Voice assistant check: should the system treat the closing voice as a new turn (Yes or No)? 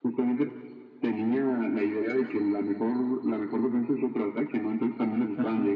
Yes